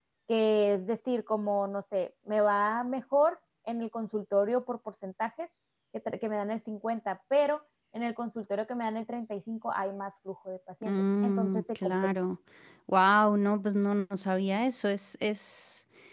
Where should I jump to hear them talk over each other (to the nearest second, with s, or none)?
11 s